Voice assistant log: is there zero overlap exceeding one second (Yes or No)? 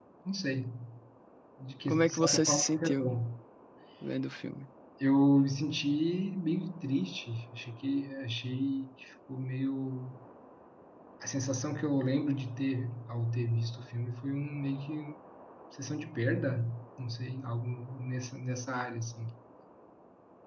No